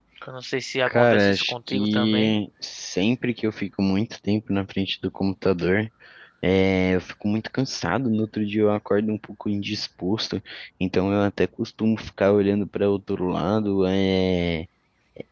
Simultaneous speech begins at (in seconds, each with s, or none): 0.9 s